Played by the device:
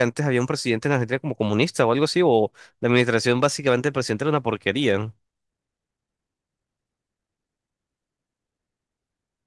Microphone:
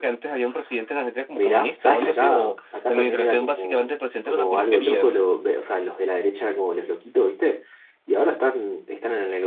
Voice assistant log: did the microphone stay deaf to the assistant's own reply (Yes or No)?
No